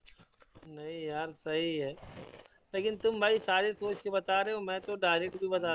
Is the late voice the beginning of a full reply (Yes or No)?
No